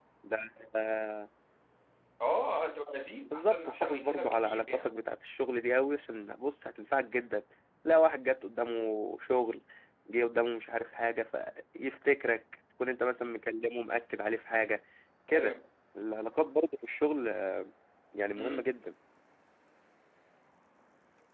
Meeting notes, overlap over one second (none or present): present